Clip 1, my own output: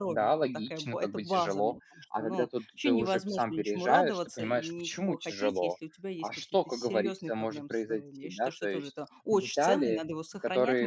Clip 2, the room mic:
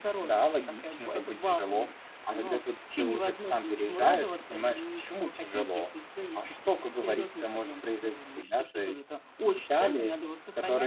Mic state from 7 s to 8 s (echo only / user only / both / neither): echo only